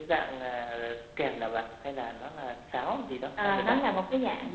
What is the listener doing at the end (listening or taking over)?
taking over